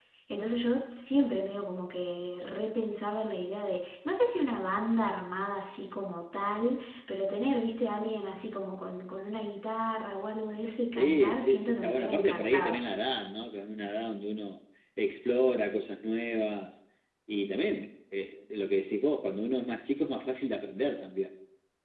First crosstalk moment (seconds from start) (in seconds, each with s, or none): 10.9 s